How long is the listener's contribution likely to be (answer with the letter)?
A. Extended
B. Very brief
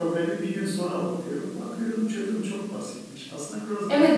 A